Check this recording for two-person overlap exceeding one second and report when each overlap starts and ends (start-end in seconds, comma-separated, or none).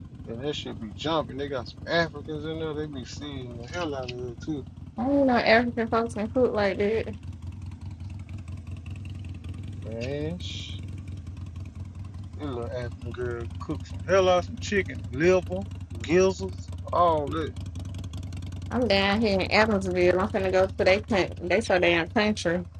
none